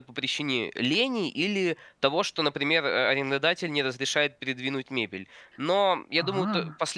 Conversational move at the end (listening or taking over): listening